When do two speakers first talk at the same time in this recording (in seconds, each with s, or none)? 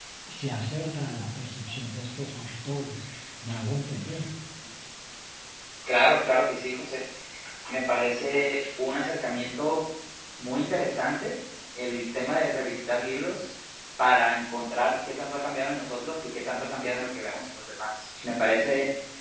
none